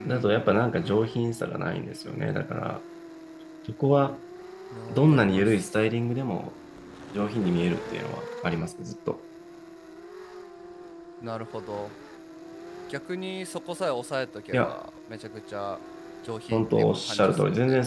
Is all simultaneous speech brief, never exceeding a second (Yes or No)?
No